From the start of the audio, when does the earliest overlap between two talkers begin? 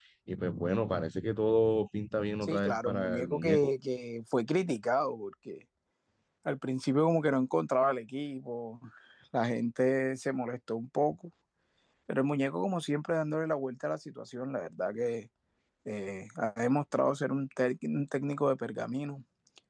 2 s

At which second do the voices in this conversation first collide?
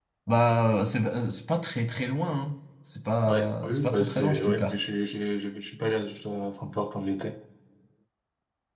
3 s

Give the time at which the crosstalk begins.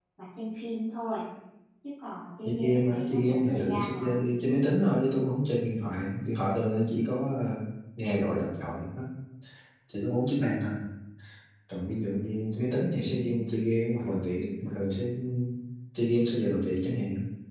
2 s

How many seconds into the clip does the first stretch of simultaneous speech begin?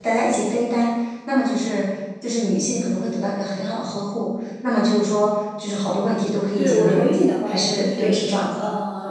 7 s

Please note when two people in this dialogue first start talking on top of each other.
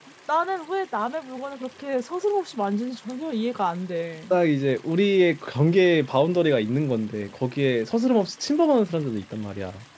none

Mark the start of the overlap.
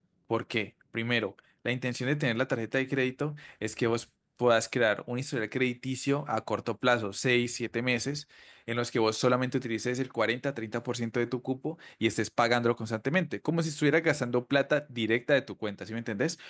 none

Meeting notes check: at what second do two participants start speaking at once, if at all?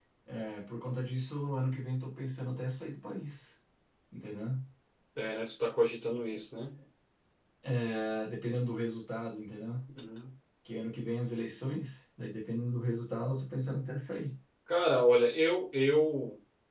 none

